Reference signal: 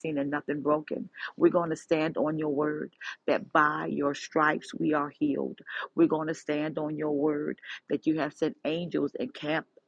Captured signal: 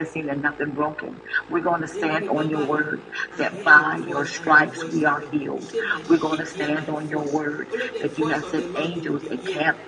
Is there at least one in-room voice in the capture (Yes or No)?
Yes